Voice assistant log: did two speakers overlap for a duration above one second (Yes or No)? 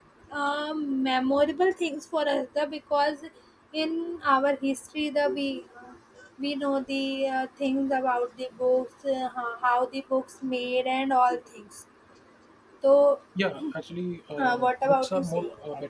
Yes